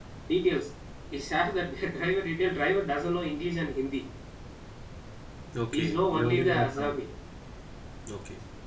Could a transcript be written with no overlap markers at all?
No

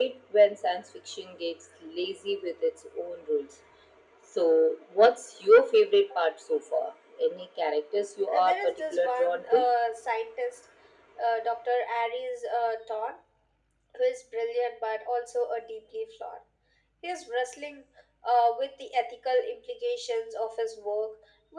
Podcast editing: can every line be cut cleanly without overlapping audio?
No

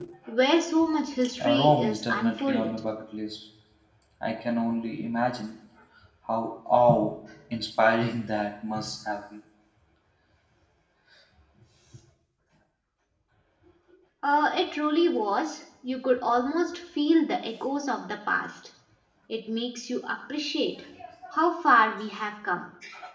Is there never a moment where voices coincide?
No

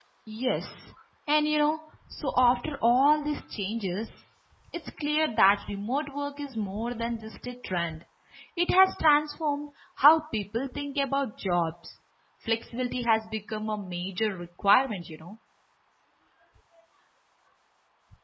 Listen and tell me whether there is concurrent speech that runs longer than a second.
No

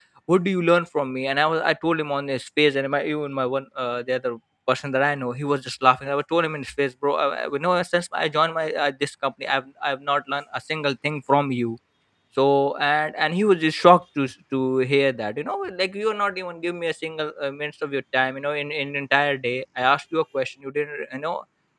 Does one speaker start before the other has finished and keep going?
No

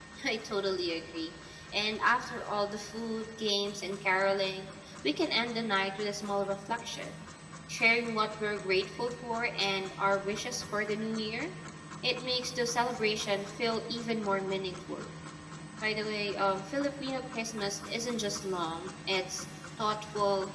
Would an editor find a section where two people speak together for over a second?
No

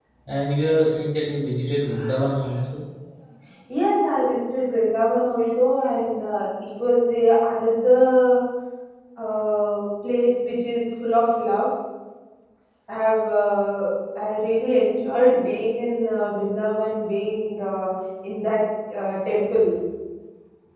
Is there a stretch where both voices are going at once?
No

